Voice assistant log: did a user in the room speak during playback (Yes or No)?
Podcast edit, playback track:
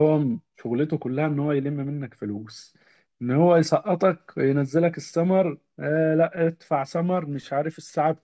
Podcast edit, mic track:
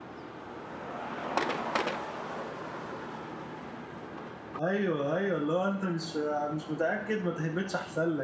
Yes